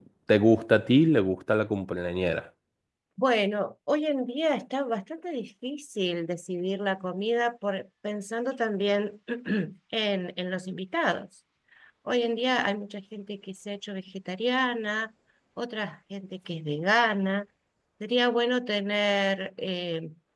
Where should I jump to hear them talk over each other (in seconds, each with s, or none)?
none